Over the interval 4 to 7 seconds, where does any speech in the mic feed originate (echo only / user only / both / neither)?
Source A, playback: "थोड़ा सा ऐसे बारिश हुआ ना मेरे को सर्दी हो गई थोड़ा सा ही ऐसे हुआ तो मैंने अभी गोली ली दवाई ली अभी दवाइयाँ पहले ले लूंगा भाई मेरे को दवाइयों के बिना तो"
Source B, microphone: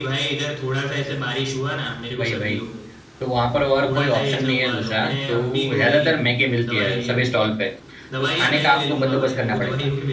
both